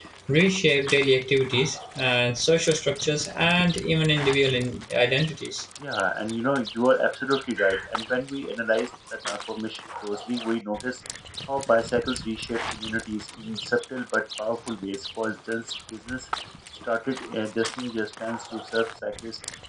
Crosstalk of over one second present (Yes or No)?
No